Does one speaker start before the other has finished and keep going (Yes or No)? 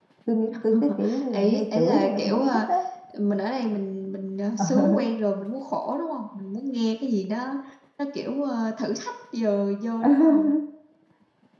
Yes